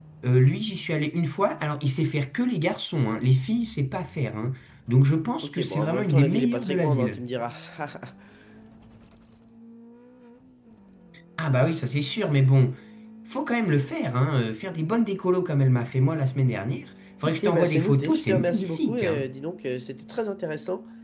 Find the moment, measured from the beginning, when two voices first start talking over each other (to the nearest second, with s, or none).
5 s